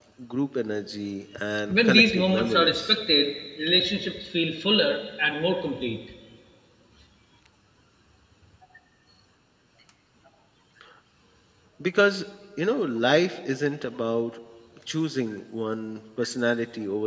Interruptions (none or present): present